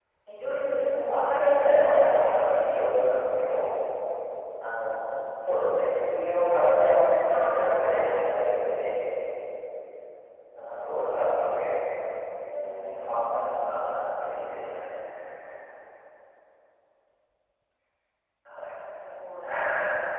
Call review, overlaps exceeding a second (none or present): present